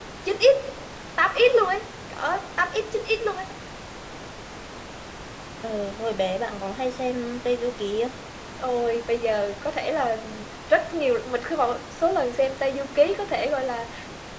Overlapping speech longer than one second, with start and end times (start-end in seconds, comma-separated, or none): none